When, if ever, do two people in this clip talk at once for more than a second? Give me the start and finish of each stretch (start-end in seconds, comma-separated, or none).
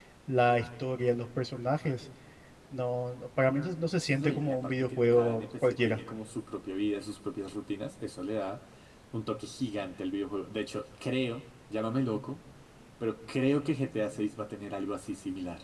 4.2-6.0